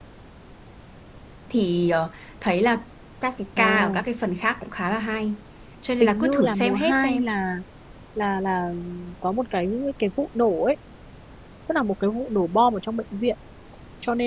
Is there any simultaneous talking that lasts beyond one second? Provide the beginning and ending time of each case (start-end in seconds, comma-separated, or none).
6.0-7.2